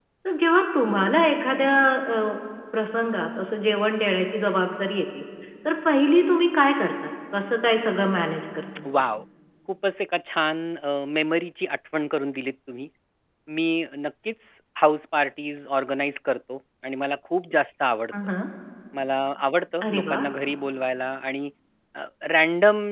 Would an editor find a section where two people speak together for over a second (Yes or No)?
No